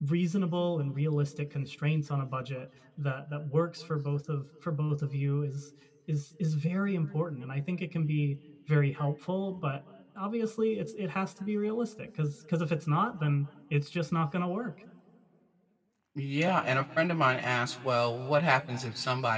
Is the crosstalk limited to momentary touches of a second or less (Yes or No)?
Yes